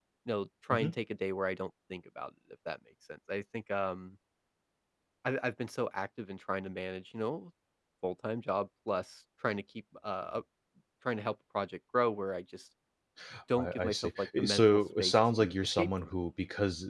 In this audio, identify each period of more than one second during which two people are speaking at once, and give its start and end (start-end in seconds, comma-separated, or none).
13.6-16.1